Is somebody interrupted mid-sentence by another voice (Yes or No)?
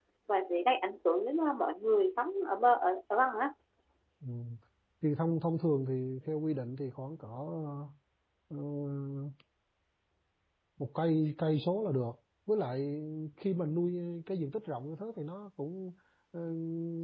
No